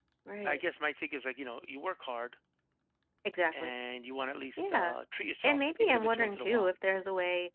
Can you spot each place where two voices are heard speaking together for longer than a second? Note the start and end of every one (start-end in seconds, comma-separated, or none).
5.4-6.7